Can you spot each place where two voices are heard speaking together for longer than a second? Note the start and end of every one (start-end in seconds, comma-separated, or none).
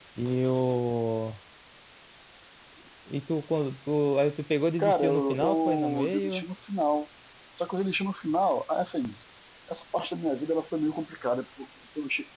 4.8-6.5